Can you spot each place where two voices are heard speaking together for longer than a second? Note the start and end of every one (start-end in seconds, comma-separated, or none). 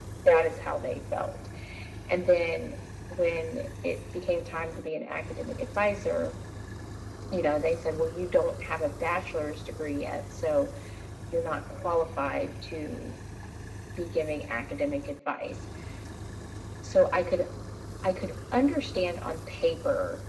none